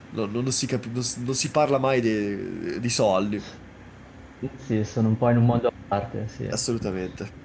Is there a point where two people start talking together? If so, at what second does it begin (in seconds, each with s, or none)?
none